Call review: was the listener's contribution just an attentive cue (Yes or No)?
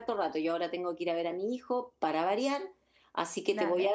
Yes